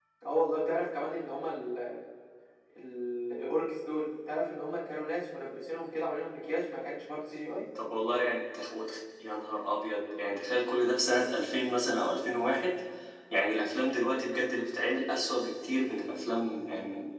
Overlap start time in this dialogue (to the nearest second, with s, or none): none